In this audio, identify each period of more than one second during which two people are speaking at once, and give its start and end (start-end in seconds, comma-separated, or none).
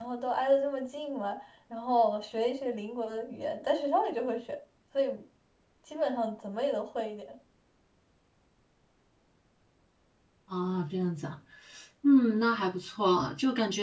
none